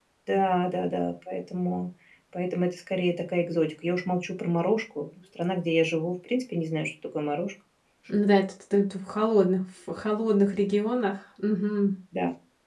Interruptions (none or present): none